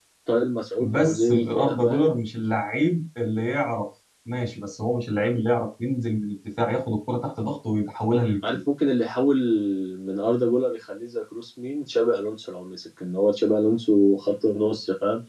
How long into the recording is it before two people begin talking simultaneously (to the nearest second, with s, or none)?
1 s